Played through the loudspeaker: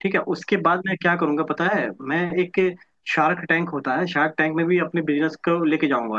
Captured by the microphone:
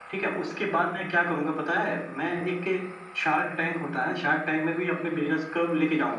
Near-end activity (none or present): none